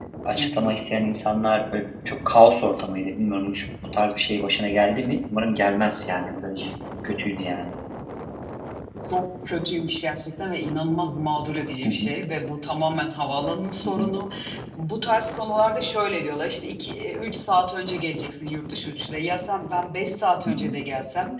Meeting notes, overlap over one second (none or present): none